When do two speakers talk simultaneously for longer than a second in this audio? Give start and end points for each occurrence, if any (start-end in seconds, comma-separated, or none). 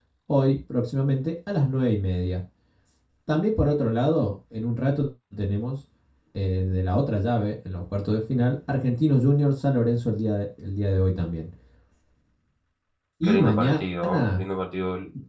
13.2-14.4